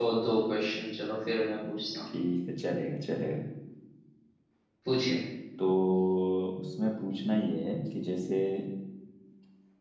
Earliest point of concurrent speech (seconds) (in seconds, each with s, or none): none